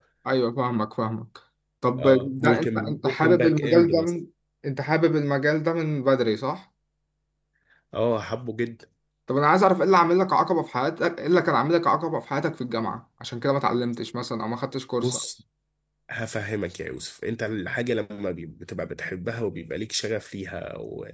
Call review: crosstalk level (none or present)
present